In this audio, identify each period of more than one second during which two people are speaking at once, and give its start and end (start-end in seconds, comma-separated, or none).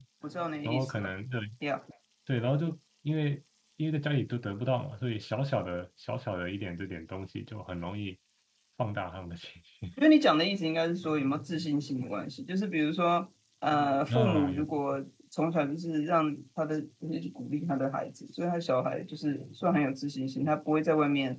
none